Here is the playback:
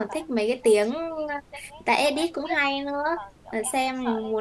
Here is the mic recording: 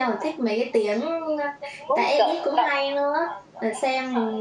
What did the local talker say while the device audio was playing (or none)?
cũng kiểu đọc